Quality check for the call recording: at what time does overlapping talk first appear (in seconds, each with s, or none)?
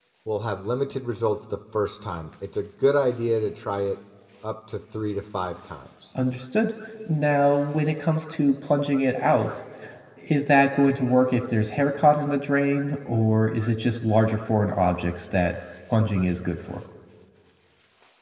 none